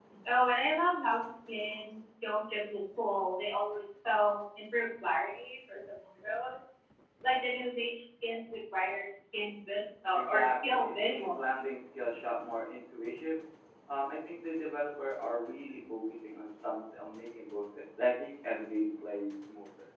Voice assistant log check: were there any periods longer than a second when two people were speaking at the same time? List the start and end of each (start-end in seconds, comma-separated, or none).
10.1-11.7